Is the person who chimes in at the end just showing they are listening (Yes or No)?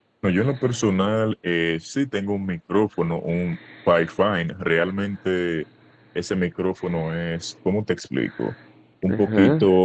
Yes